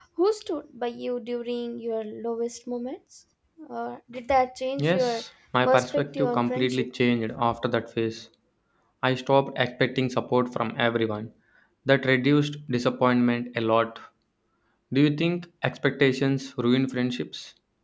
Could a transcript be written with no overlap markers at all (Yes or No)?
No